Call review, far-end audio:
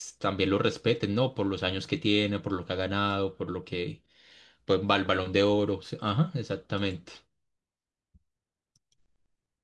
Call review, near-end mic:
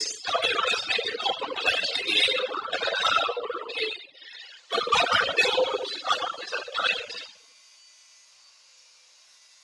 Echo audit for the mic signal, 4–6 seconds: echo only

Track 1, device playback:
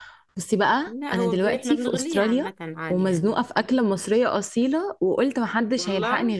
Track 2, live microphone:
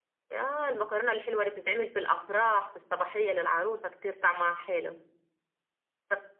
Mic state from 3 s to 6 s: user only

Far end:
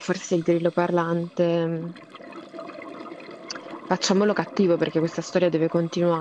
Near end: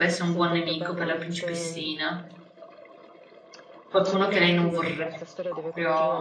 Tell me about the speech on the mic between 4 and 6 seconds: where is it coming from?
both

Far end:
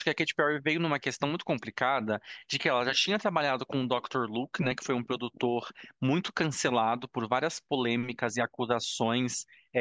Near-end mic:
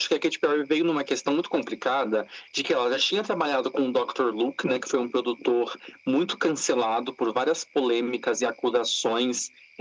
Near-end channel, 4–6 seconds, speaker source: echo only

